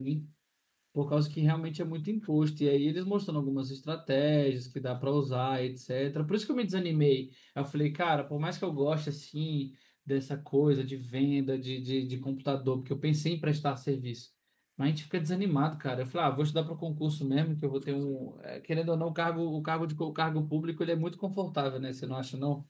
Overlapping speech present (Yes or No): No